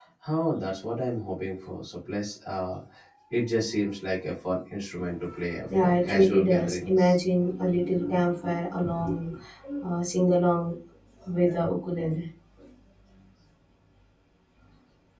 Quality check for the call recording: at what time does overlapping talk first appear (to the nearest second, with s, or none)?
6 s